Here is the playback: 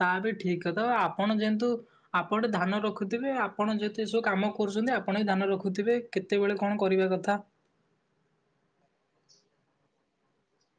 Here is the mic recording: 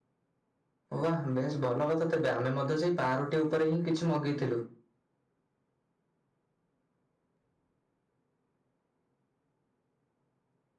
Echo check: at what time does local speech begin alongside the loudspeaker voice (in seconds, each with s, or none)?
1.0 s